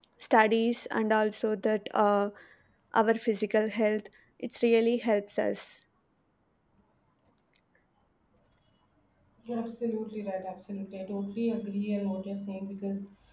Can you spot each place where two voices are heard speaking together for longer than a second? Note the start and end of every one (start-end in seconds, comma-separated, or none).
none